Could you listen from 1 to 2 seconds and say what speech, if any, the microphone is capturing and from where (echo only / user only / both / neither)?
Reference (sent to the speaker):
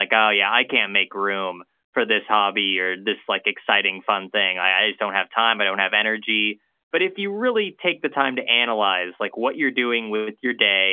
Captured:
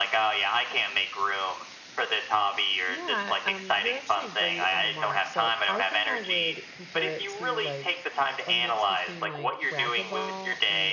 echo only